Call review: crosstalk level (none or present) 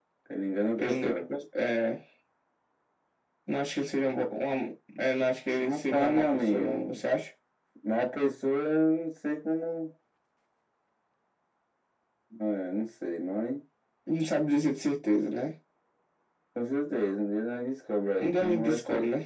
present